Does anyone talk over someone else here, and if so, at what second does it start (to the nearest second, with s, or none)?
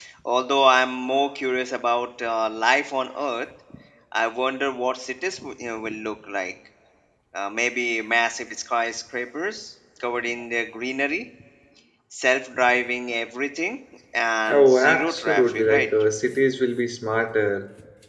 14 s